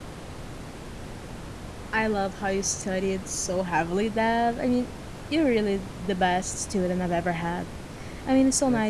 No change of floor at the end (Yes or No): Yes